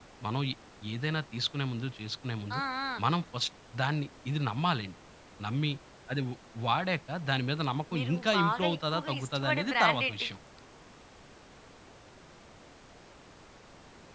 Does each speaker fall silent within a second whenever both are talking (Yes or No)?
No